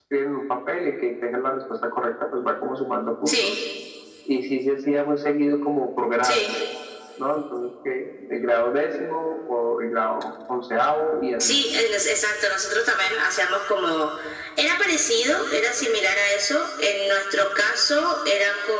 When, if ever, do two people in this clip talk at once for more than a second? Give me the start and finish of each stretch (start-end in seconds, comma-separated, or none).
none